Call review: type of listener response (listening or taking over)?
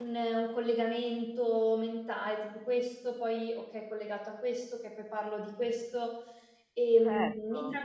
taking over